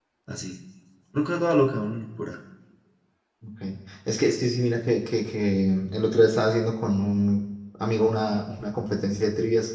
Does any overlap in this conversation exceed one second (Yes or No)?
No